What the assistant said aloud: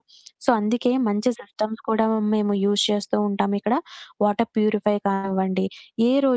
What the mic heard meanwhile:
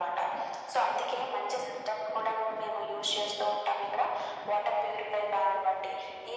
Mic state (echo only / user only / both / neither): echo only